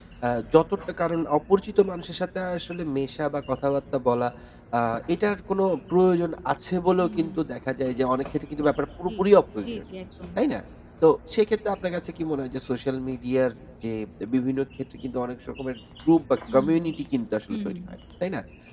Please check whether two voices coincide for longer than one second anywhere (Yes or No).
No